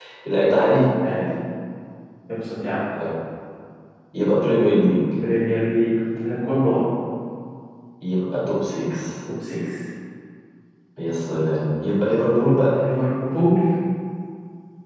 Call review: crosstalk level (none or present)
none